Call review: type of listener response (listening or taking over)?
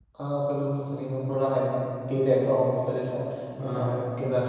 listening